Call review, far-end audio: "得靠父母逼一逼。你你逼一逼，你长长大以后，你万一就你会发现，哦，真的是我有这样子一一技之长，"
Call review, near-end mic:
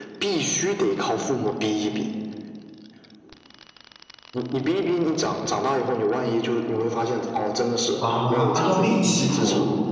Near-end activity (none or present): present